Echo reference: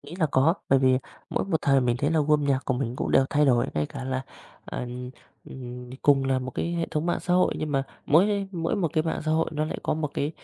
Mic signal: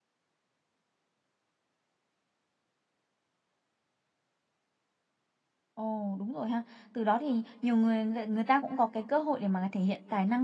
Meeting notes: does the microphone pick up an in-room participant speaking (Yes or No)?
Yes